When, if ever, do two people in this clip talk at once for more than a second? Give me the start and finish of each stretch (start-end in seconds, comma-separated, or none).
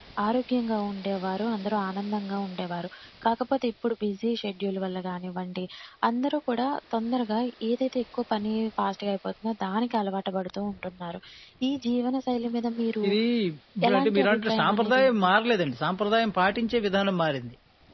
13.9-15.3